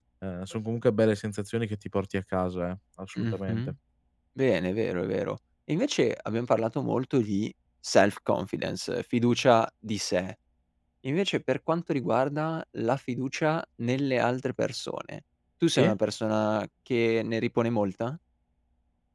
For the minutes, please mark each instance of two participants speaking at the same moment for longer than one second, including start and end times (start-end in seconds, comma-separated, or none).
none